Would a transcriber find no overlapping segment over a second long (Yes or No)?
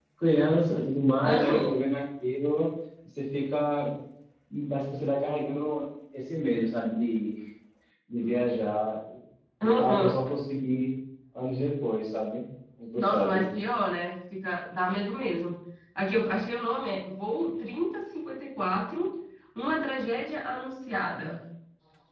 Yes